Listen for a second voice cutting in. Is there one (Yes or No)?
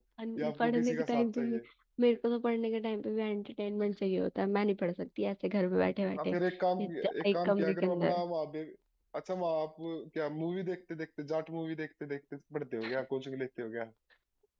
Yes